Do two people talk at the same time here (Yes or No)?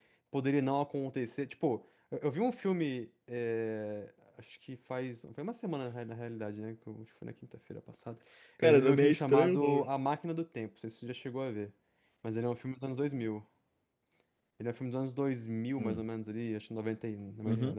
Yes